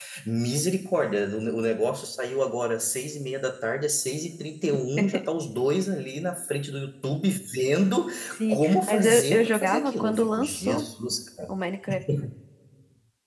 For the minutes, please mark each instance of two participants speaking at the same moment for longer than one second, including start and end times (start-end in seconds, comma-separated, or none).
8.5-10.8